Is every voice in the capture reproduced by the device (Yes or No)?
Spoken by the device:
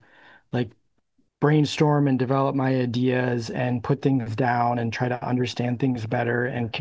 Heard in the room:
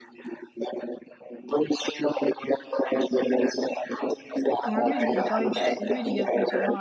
No